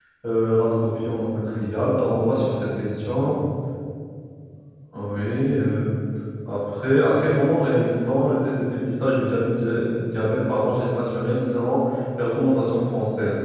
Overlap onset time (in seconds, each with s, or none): 1.5 s